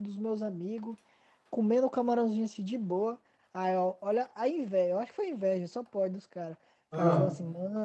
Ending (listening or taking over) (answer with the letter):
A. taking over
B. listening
B